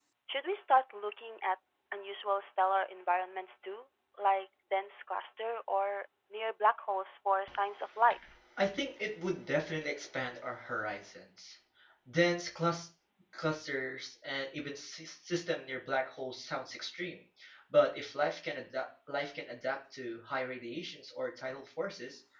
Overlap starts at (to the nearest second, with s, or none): none